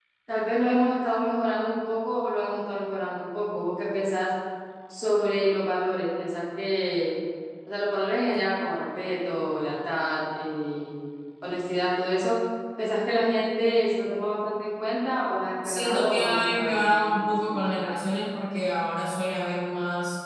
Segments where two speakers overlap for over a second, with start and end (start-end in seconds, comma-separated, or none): 15.6-17.7